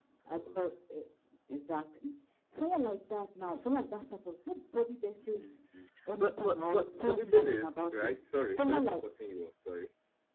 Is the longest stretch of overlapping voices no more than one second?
No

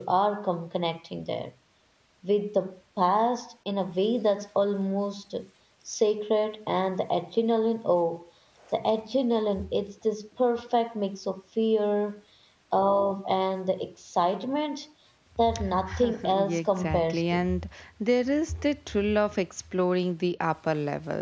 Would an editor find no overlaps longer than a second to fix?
No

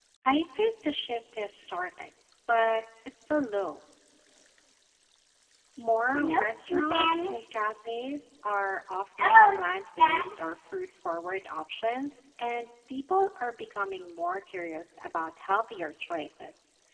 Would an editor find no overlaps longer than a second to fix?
No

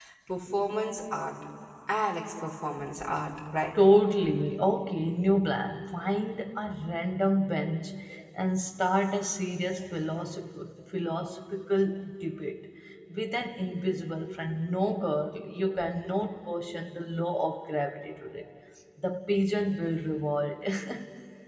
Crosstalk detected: No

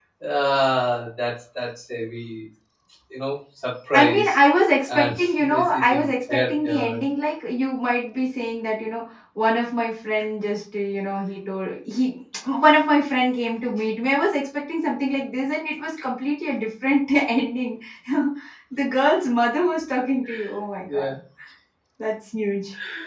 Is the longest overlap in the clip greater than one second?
Yes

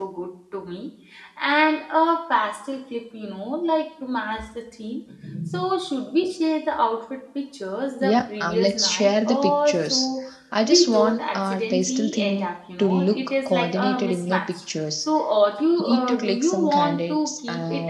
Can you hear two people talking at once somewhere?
Yes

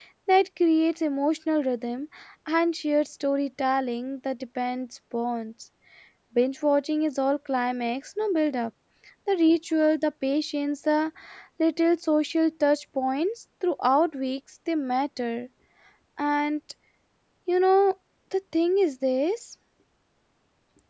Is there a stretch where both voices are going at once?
No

